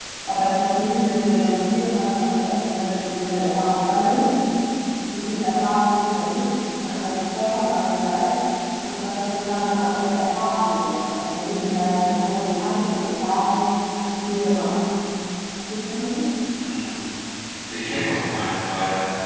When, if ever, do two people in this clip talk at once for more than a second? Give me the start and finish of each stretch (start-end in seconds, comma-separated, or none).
none